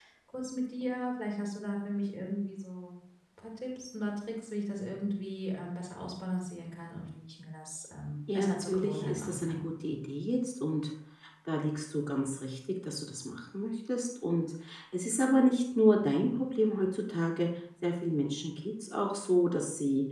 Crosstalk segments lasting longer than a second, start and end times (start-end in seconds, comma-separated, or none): 8.3-9.6